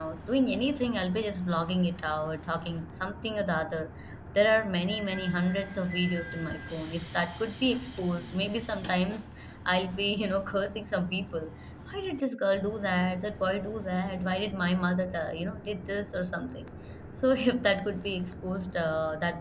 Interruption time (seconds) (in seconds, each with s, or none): none